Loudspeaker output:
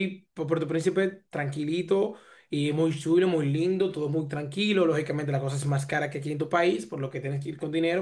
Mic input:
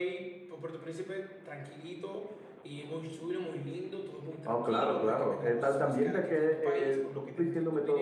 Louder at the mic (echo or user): user